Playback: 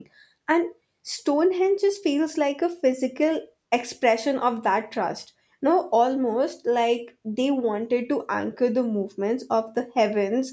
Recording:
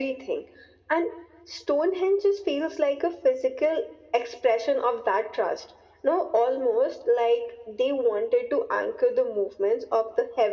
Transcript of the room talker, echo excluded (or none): none